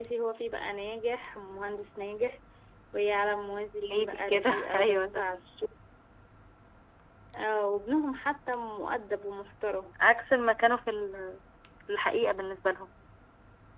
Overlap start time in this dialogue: 3.8 s

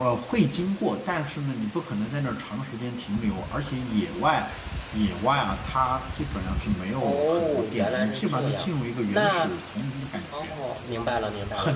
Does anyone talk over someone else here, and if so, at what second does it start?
7.0 s

